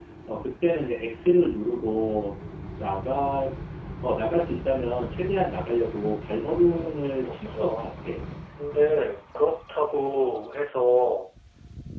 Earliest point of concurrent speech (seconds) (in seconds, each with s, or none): 6.4 s